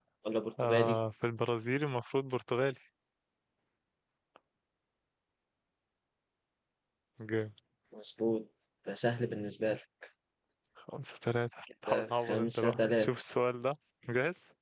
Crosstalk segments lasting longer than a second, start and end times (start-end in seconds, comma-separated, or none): 11.9-13.1